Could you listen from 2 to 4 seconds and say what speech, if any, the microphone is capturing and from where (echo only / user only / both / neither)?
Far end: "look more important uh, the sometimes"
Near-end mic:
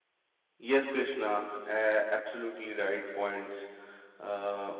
user only